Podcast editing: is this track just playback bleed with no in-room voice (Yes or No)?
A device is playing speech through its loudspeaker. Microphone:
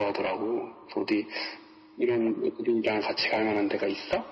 Yes